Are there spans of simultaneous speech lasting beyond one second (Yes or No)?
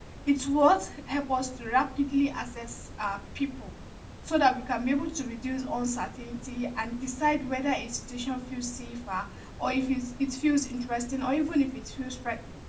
No